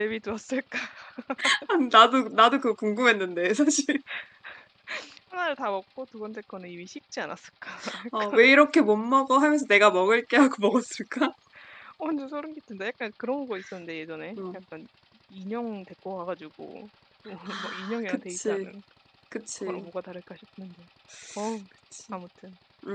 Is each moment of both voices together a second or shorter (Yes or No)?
No